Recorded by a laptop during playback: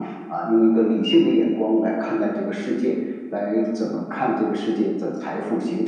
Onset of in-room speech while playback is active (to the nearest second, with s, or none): none